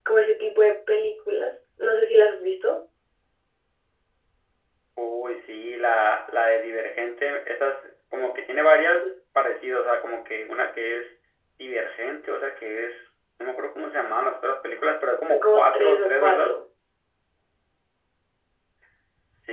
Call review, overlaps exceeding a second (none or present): present